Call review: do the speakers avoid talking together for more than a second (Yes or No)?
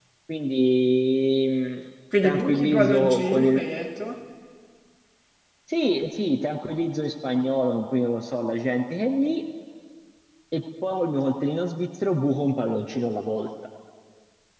No